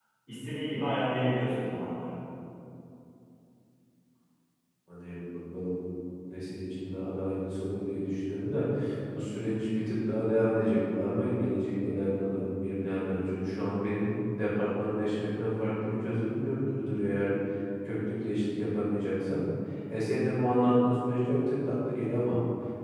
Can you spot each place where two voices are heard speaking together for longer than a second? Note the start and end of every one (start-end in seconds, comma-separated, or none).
none